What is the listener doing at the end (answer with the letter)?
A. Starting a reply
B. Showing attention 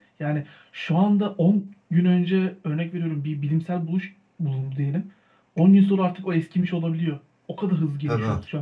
A